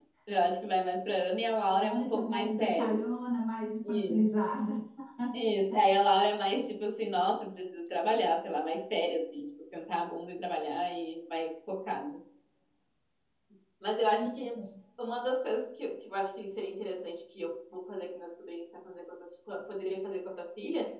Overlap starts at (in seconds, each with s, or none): 1.7 s